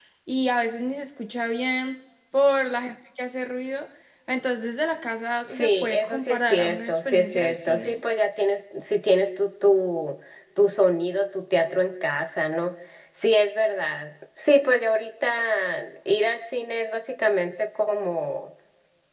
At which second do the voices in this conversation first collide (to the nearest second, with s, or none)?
5 s